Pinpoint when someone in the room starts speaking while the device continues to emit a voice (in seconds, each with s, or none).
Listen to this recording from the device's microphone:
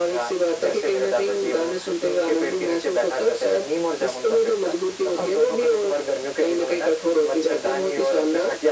none